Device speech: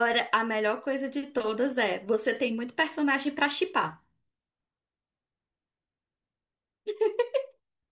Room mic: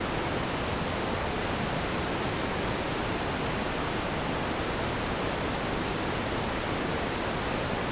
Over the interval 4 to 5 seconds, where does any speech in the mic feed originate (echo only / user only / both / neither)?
neither